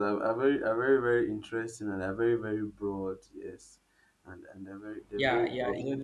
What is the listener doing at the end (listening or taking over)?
taking over